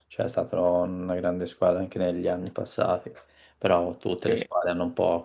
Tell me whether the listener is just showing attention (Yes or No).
Yes